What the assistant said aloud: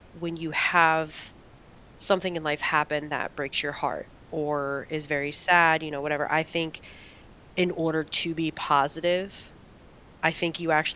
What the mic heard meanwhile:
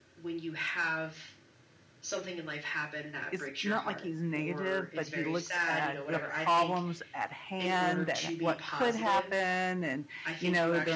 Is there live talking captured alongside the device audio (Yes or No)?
Yes